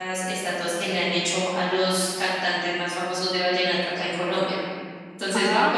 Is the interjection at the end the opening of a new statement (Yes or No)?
Yes